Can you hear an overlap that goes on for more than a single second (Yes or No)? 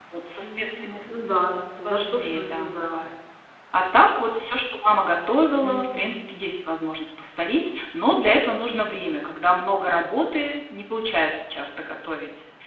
Yes